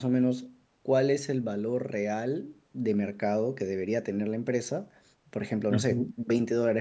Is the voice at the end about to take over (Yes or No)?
No